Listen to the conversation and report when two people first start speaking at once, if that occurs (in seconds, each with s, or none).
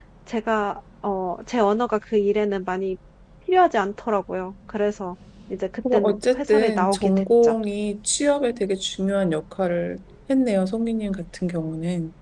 5.9 s